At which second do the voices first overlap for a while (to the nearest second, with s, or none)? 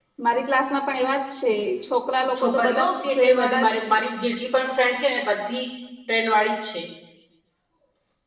2 s